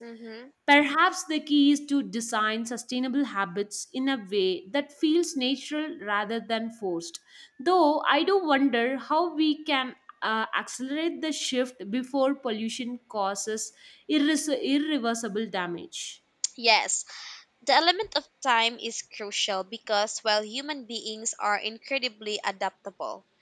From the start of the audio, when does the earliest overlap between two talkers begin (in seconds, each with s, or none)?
none